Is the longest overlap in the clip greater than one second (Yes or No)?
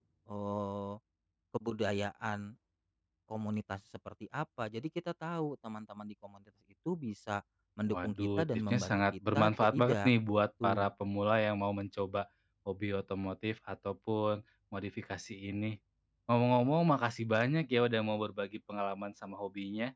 Yes